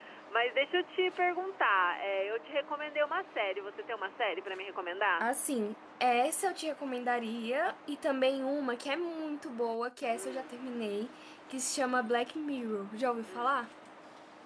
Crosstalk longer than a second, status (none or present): none